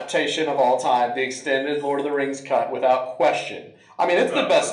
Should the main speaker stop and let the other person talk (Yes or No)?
No